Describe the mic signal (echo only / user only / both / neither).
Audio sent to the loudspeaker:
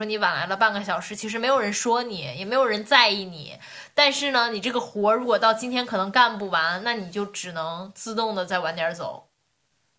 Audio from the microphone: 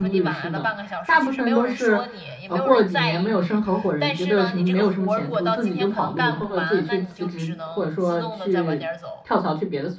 both